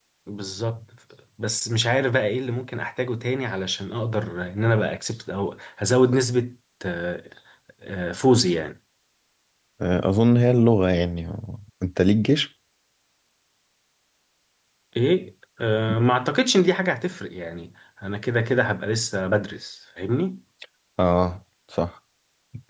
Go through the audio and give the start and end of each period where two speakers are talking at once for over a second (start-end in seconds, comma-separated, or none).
none